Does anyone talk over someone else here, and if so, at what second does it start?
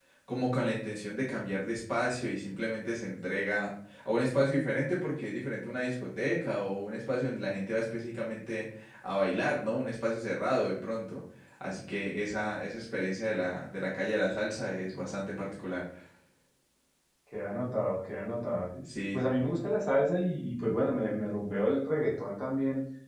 none

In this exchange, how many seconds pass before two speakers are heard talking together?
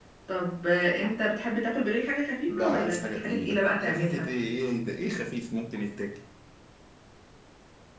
2.5 s

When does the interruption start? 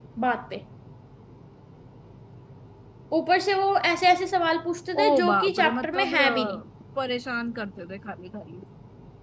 5.0 s

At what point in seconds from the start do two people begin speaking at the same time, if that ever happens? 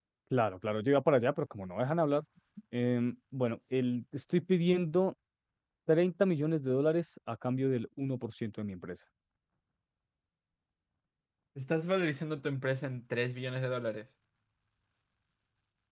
none

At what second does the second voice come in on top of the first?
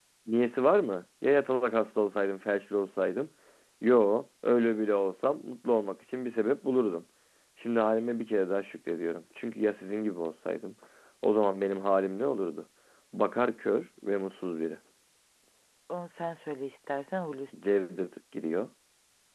none

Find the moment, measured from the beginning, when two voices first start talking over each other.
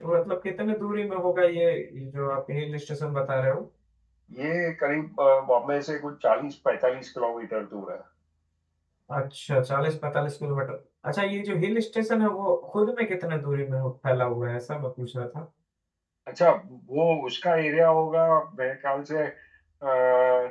none

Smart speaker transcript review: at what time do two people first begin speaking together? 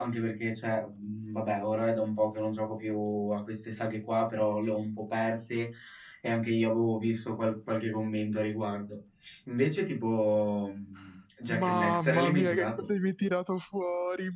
11.5 s

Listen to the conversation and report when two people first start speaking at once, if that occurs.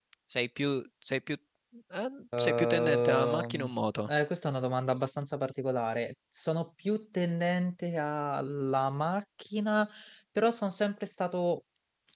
2.3 s

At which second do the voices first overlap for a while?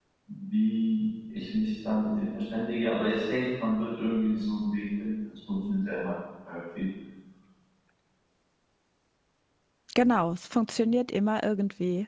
none

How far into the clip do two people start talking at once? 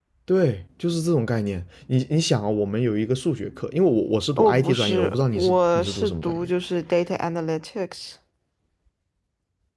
4.4 s

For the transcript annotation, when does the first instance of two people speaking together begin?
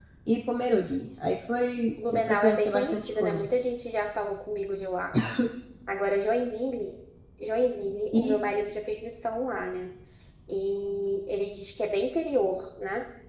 2.0 s

